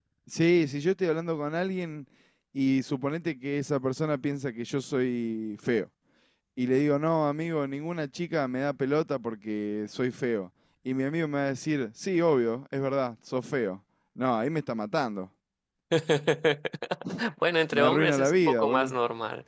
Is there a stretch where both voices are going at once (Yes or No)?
Yes